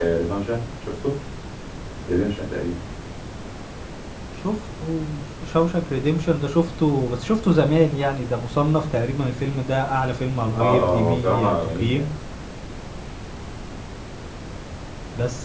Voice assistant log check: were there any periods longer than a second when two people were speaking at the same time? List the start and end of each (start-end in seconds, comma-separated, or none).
10.6-12.1